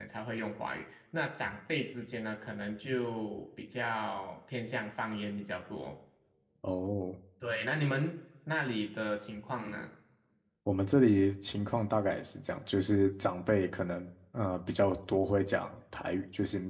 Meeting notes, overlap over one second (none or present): none